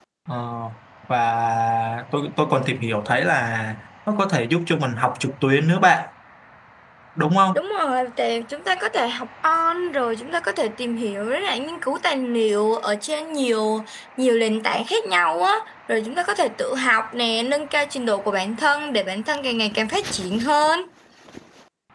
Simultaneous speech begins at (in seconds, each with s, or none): none